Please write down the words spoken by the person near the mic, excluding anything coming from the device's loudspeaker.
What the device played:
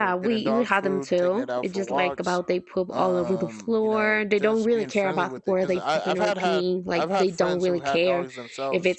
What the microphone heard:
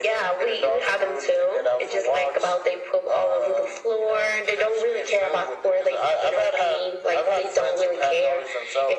none

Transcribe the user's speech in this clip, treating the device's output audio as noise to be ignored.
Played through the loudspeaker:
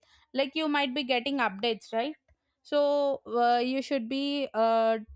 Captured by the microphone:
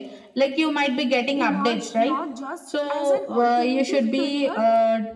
emerged not just as an alternative career

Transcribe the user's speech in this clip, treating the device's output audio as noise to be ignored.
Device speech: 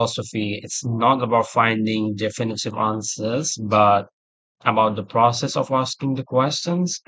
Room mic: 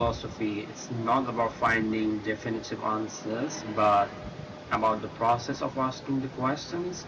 none

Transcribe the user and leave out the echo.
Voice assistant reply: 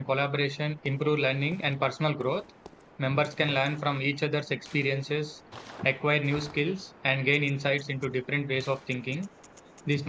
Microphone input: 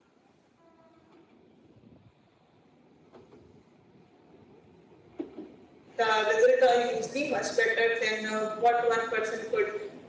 the result are usually much better than uh, what one person could

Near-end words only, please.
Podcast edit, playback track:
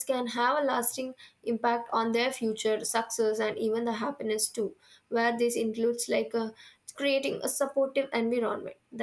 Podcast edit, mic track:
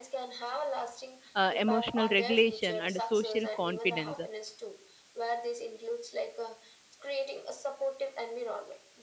uh, emotional regulation, and social confidence

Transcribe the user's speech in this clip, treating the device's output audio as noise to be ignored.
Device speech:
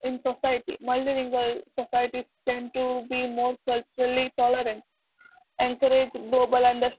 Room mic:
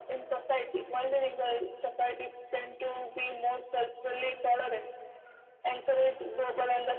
none

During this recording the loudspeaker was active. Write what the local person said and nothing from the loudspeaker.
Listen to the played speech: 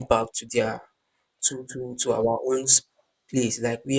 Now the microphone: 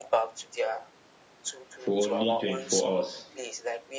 for only 24 hours.

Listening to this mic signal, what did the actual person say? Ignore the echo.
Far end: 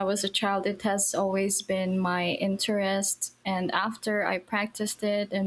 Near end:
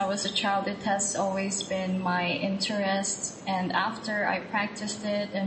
none

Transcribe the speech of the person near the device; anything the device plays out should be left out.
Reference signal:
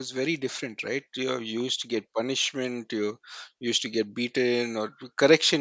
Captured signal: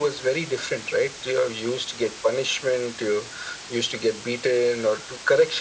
none

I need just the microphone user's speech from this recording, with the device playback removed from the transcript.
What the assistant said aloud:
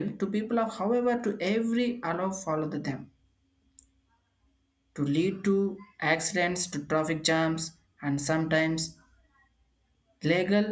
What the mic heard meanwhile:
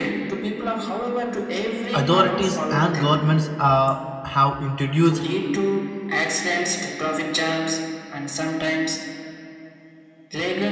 authorities and governments uh, have introduced

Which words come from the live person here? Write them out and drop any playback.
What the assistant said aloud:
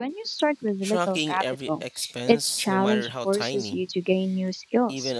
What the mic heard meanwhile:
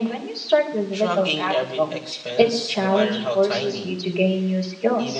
none

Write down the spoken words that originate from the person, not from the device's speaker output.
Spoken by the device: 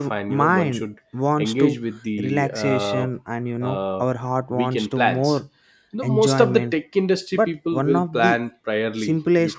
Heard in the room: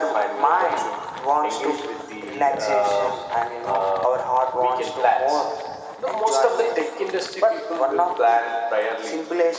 none

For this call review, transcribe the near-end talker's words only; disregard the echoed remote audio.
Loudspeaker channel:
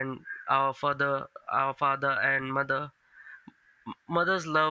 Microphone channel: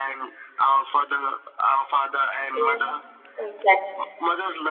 Yeah, exactly.

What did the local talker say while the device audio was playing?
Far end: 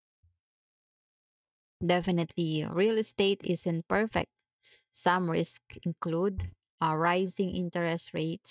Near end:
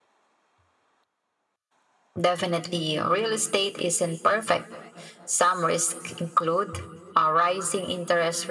none

